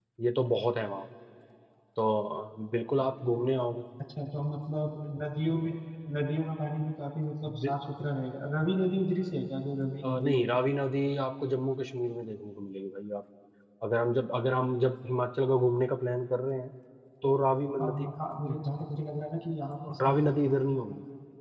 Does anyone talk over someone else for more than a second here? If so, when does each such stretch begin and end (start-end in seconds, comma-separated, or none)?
none